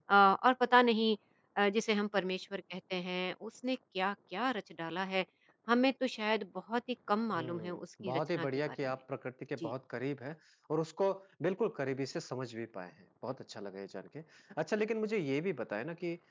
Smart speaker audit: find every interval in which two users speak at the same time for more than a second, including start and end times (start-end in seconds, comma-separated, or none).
7.3-8.8